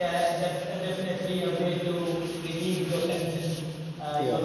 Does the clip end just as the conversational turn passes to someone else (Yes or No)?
No